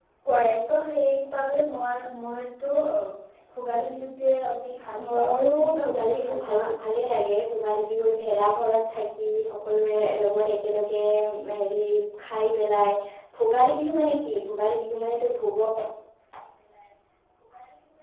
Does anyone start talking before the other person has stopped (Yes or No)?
Yes